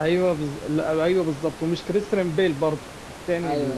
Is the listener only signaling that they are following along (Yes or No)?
Yes